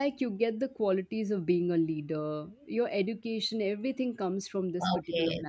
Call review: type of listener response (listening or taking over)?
taking over